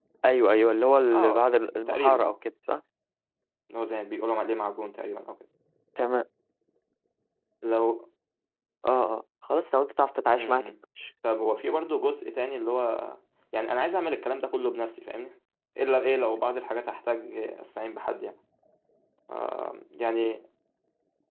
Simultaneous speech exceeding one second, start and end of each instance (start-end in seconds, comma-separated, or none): 1.1-2.4